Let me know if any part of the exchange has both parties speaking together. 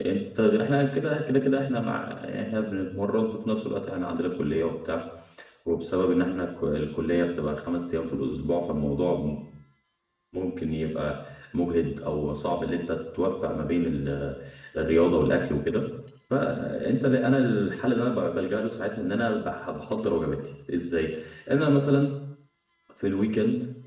No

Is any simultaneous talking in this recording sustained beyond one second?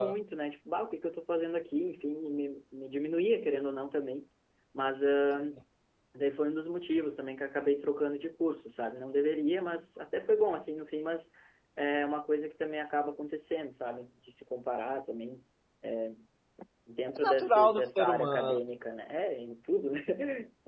Yes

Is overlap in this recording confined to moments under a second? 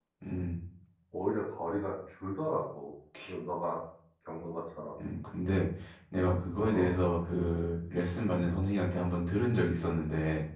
Yes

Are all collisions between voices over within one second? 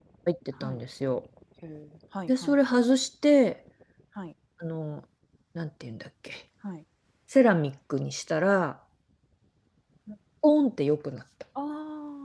Yes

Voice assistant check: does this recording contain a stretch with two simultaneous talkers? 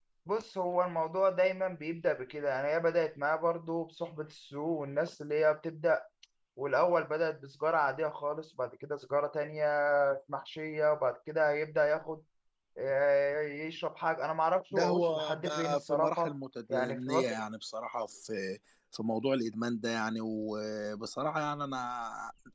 Yes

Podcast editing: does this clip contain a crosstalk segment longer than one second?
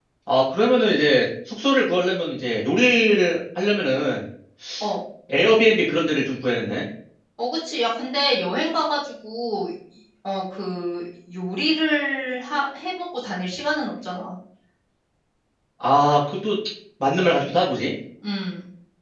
No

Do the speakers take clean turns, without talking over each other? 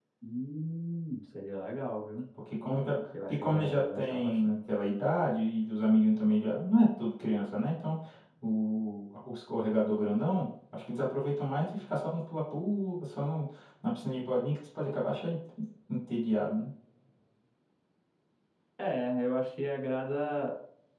No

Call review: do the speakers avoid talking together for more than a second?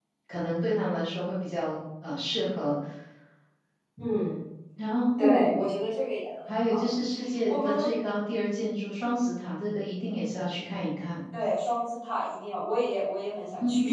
Yes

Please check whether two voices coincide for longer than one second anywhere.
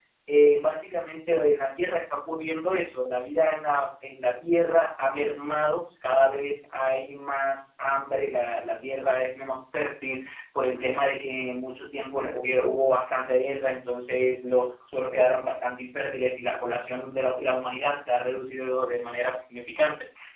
No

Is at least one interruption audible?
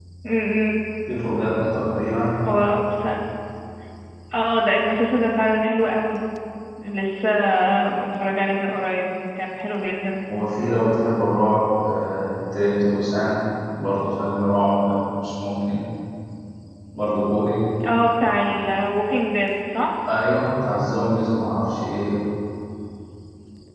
No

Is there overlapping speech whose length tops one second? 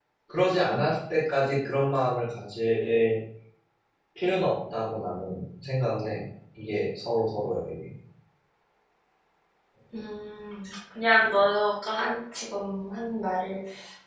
No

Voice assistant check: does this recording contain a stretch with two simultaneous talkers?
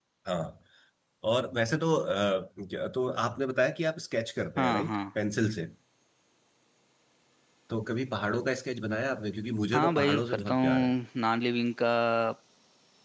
Yes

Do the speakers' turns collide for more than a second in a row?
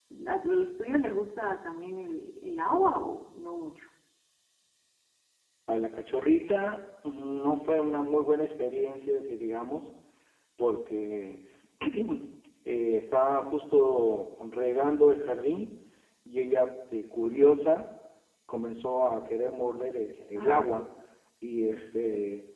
No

